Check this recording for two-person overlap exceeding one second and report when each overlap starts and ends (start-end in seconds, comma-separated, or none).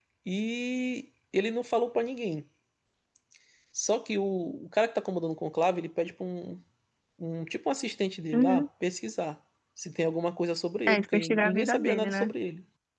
10.9-12.3